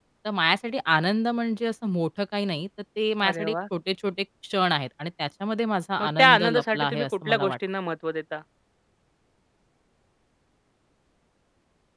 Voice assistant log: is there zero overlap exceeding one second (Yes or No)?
No